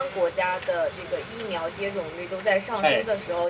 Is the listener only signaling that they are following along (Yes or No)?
Yes